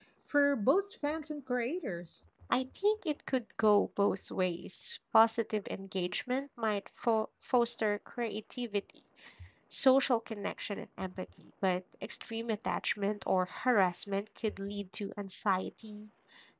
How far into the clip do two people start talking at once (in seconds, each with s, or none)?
none